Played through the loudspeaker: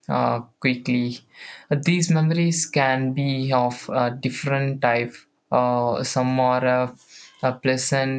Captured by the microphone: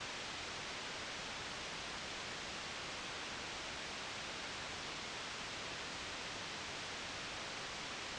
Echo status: none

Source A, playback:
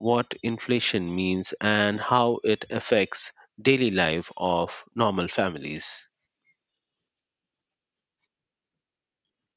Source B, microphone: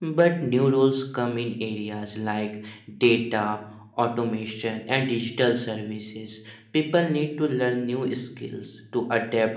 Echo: none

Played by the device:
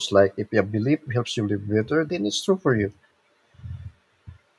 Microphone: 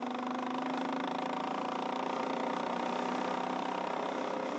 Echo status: none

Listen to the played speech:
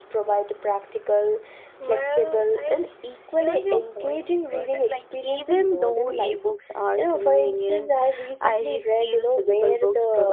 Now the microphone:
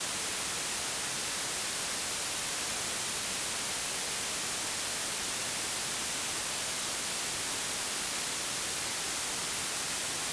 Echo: none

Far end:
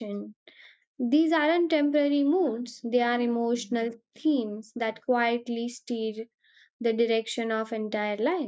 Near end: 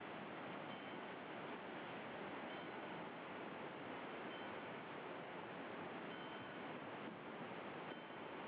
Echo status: none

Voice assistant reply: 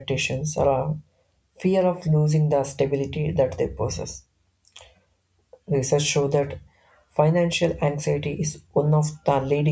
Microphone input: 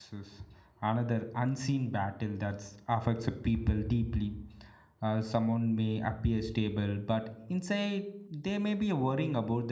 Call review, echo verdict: none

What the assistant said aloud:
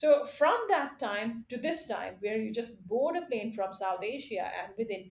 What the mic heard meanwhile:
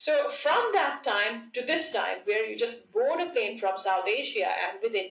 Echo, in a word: present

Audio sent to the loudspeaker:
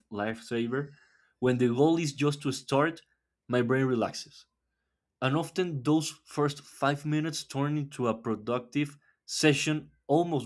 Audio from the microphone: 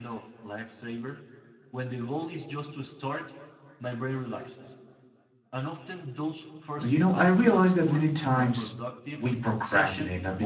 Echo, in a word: present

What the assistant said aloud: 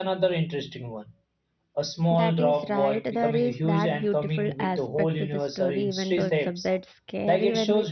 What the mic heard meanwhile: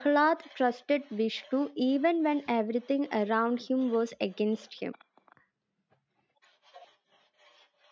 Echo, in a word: none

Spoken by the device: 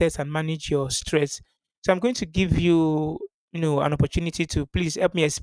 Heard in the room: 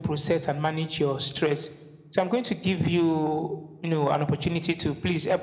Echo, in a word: present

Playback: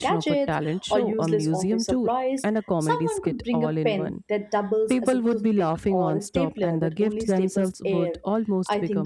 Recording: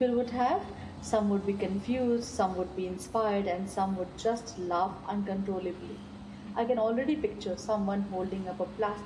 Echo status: none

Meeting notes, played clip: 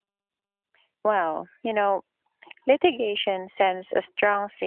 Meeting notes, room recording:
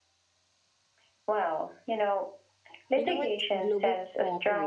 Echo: present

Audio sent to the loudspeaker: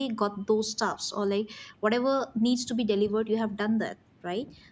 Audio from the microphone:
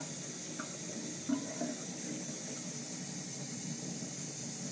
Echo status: none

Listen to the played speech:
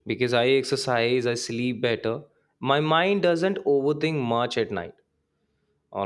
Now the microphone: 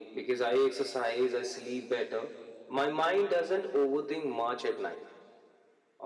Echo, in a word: present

